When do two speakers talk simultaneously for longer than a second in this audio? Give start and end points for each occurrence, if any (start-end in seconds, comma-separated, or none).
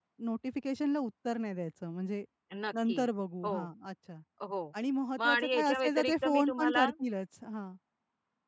5.2-6.9